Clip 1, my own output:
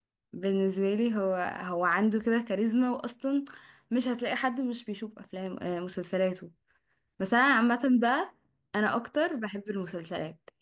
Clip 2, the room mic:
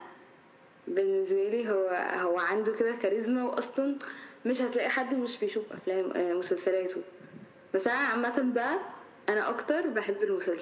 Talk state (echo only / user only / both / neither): echo only